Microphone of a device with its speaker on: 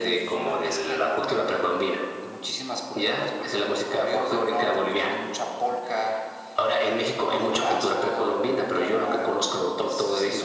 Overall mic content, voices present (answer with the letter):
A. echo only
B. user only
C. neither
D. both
A